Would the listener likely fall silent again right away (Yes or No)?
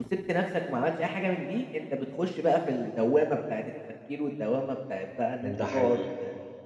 Yes